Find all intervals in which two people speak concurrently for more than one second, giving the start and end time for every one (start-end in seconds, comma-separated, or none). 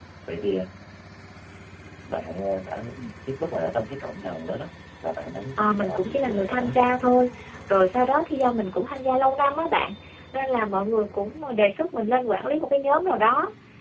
5.6-6.8